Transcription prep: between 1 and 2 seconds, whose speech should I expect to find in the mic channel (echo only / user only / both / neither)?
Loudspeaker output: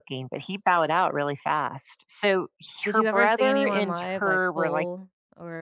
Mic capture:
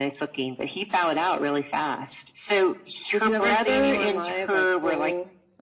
echo only